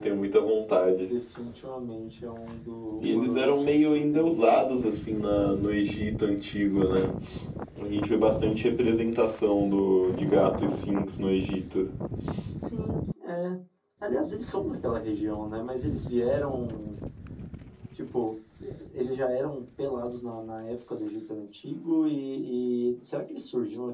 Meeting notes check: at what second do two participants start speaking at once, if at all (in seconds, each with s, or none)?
3.0 s